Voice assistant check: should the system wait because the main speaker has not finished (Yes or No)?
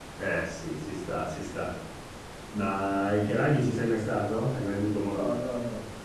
No